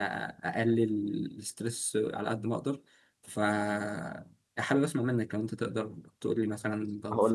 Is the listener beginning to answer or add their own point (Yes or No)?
Yes